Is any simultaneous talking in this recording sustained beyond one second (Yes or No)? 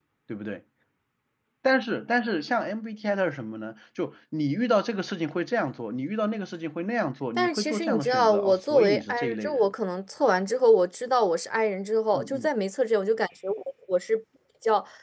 Yes